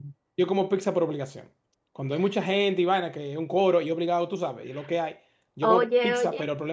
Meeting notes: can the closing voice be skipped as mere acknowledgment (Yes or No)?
Yes